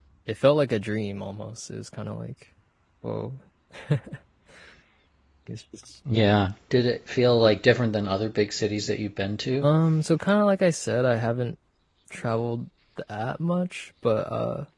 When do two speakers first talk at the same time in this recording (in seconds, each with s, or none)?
none